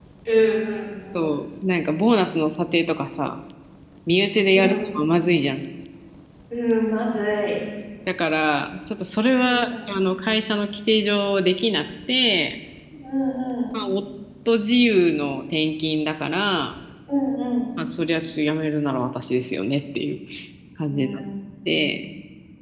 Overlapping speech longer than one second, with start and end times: none

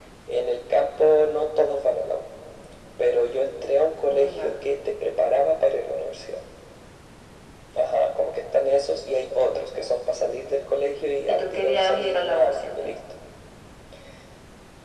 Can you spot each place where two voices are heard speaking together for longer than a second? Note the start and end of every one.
11.3-13.0

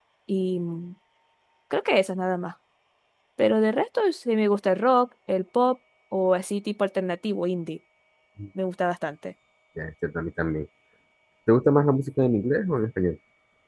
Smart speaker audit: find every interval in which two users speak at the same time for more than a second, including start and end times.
none

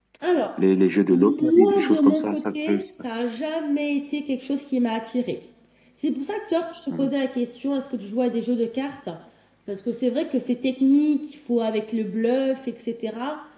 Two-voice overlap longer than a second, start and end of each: 1.1-2.8

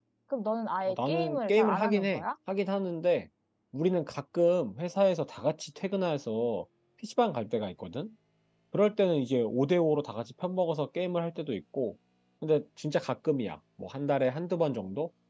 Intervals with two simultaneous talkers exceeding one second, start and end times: 0.8-2.2

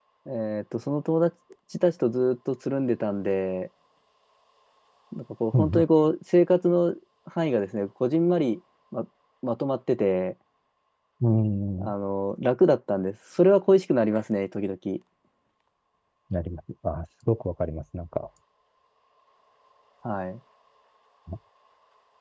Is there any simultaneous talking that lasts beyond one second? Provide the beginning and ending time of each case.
none

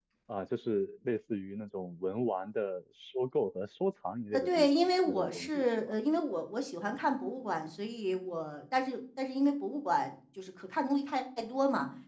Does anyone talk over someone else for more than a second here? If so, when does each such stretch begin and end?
4.3-5.9

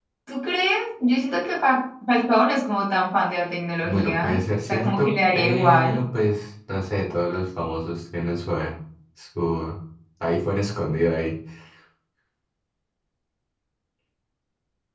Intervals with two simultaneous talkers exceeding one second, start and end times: 3.8-6.0

